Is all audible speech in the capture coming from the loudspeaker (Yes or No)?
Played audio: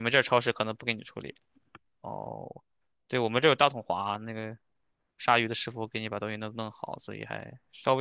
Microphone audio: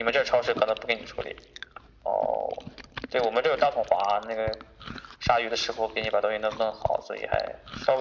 Yes